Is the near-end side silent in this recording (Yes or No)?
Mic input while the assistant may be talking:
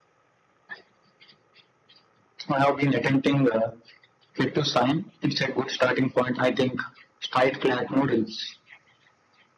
Yes